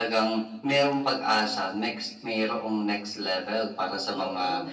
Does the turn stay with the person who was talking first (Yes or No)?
Yes